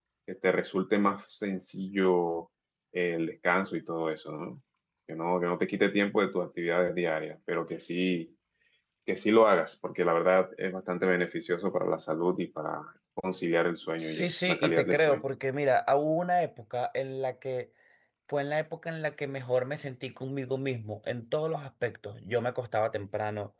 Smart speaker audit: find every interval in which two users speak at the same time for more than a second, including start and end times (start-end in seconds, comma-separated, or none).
14.0-15.2